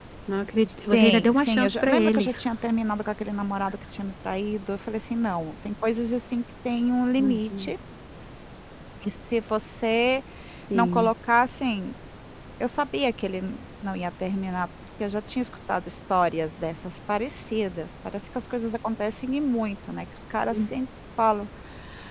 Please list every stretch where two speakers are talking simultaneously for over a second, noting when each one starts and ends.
0.8-2.3

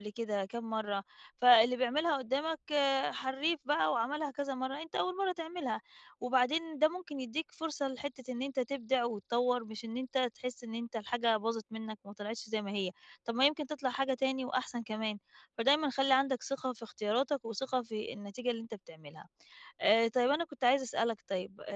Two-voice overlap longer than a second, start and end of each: none

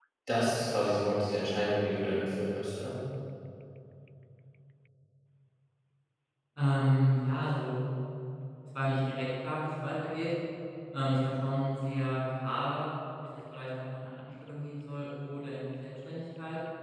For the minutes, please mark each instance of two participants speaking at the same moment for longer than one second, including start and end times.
none

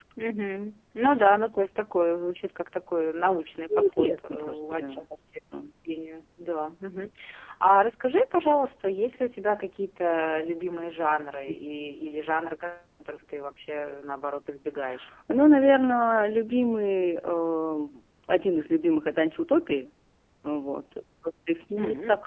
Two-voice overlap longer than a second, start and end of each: 3.8-5.0

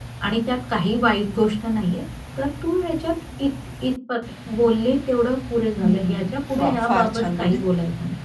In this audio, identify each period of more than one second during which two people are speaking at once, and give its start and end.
5.7-7.6

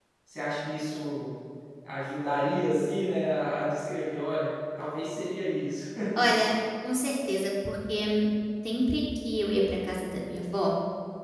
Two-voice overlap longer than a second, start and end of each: none

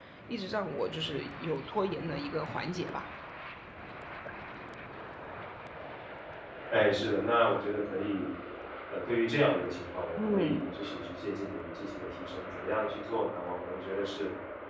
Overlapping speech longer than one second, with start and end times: none

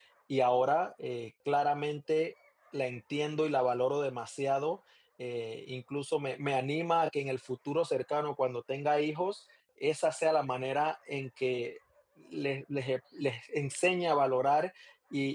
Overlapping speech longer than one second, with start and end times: none

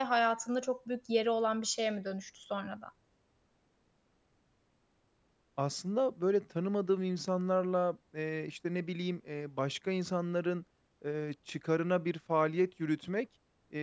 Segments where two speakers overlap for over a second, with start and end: none

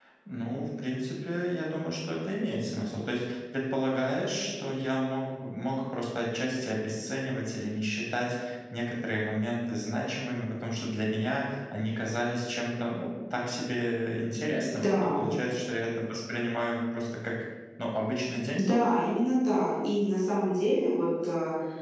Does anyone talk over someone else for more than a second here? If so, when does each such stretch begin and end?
none

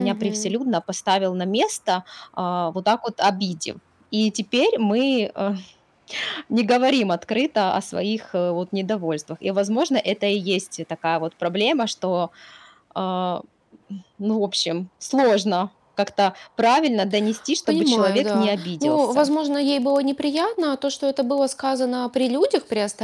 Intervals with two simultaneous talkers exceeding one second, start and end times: 17.7-19.3

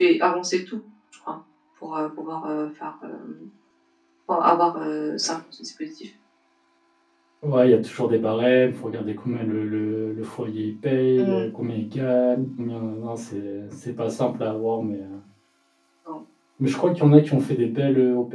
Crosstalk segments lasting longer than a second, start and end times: none

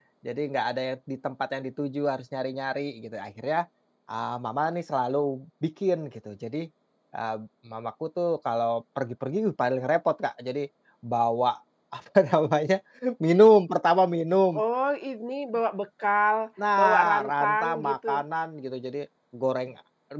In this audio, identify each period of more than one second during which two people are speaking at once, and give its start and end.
16.8-18.1

